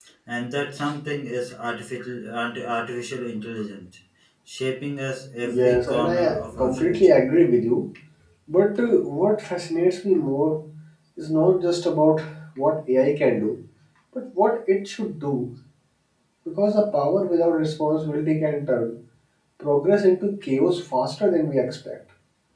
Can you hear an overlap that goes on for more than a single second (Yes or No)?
Yes